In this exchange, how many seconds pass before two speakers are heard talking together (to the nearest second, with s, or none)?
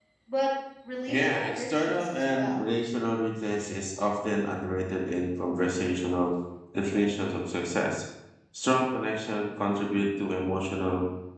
1 s